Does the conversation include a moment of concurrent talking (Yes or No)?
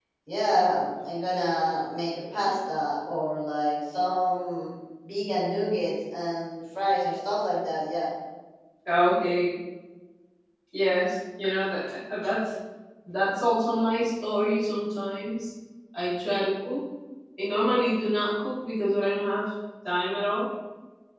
No